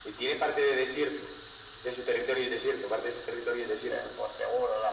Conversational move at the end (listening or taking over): taking over